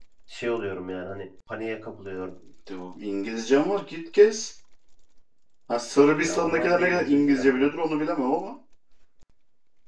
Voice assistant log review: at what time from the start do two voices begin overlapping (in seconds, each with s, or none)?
6.2 s